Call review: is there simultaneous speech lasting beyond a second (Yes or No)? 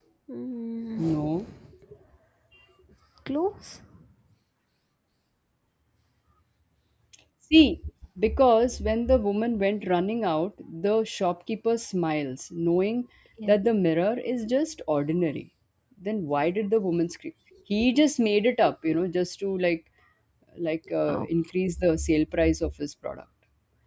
No